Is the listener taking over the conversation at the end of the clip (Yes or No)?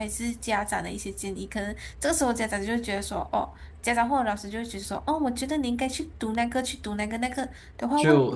No